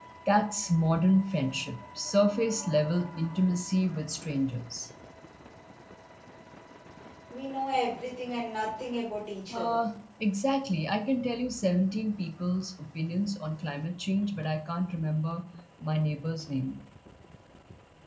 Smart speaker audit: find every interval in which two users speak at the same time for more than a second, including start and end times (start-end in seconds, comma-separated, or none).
none